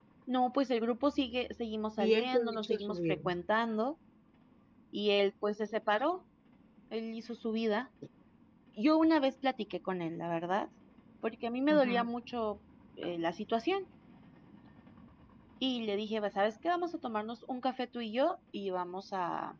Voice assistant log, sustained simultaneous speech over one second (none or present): present